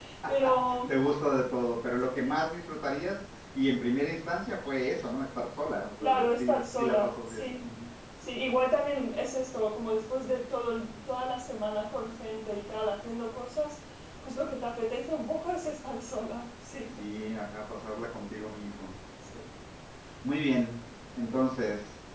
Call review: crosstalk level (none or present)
present